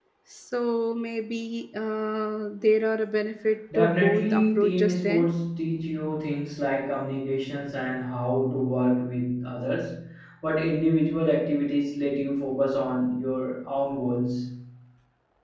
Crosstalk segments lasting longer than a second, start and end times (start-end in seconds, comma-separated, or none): 3.7-5.3